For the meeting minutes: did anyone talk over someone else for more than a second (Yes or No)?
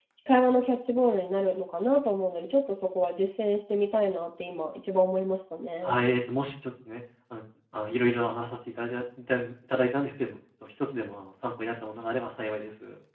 No